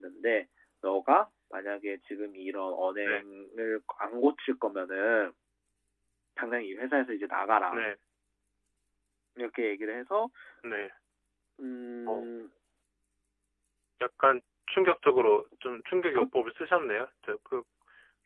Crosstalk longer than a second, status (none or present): none